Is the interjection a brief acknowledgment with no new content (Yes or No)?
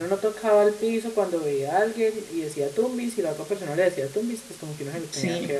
Yes